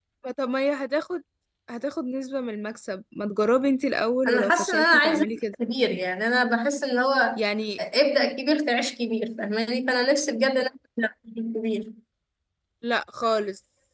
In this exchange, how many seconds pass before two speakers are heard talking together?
4.3 s

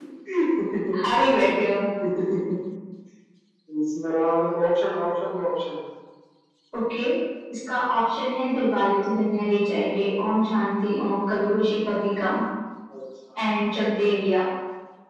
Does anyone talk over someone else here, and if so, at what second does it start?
none

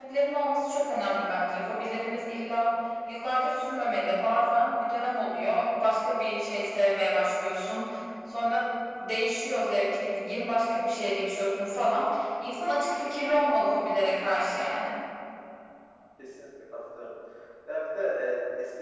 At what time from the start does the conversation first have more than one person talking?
none

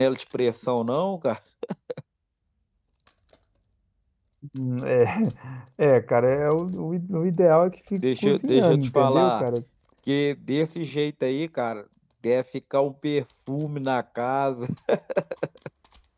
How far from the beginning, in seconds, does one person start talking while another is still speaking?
8.0 s

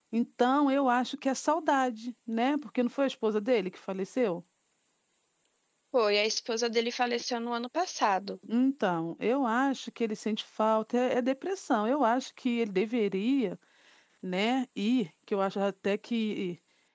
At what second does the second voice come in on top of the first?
none

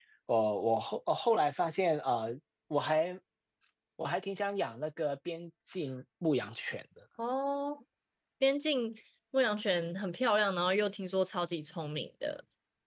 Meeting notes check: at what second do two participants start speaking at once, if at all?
none

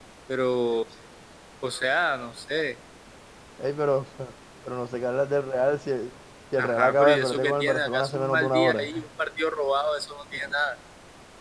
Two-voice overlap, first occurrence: 6.6 s

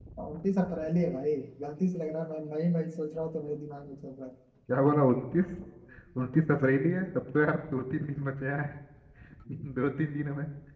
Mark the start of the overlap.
none

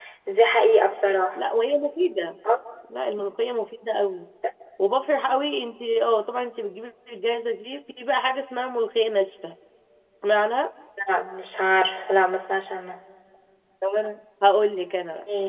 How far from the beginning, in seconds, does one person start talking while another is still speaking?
none

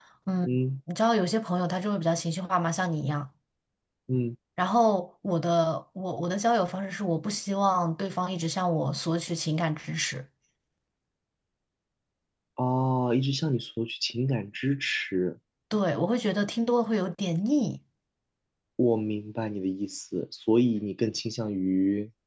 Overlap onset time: none

